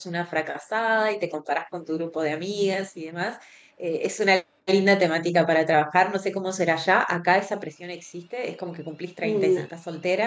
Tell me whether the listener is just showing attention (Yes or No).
Yes